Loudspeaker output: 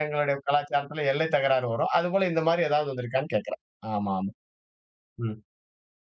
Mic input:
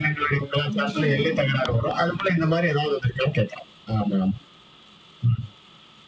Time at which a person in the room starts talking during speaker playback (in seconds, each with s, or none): 0.7 s